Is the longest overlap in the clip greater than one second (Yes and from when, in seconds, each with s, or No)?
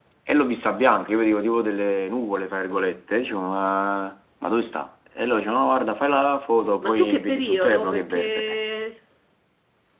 Yes, from 6.8 s